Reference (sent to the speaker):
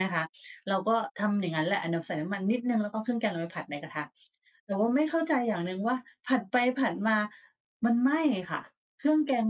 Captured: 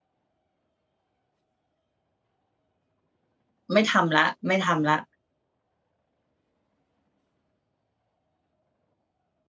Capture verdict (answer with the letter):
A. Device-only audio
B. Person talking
B